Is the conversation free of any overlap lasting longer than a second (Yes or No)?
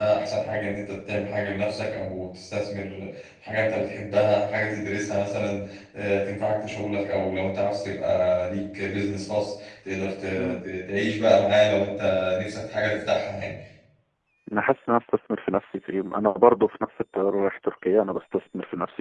Yes